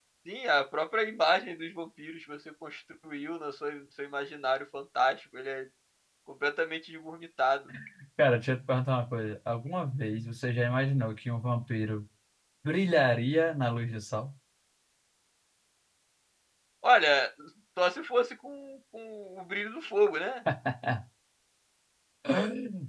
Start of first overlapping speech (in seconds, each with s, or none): none